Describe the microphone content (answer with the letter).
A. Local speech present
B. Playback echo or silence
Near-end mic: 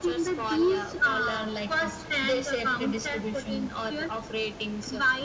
B